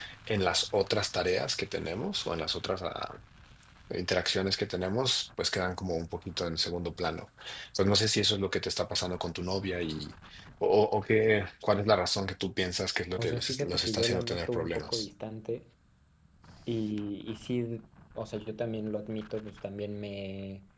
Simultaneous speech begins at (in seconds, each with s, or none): 13.2 s